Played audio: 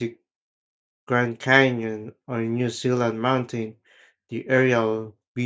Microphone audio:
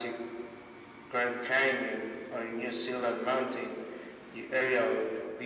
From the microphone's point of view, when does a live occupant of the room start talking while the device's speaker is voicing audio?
none

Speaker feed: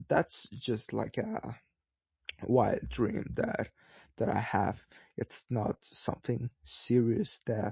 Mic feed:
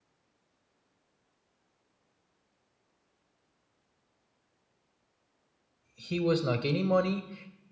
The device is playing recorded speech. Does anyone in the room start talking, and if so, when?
6 s

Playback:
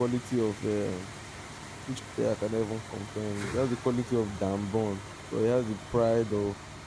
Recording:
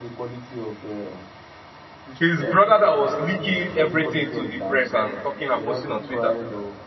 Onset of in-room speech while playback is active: 2 s

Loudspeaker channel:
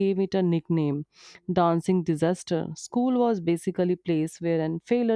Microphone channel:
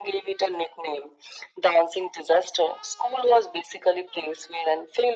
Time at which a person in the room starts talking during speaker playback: none

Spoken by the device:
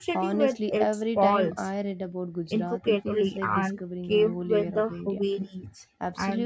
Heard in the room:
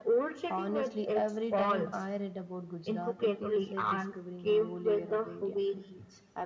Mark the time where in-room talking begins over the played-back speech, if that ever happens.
none

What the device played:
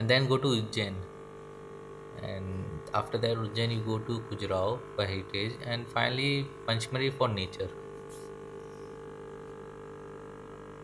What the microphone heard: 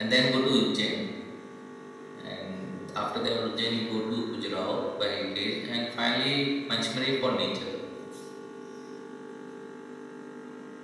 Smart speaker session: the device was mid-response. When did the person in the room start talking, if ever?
none

